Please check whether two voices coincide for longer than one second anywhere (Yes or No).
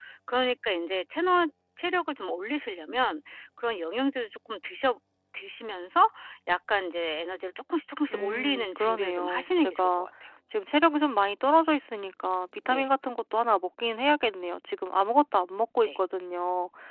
Yes